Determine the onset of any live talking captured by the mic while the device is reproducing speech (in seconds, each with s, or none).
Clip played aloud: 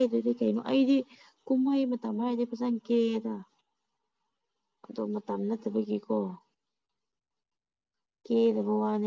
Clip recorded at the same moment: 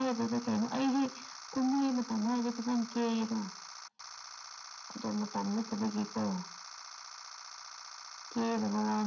none